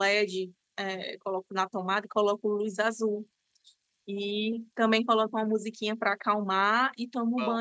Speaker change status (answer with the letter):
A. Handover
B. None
B